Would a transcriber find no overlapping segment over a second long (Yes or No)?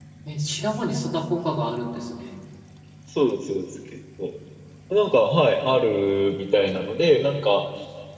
Yes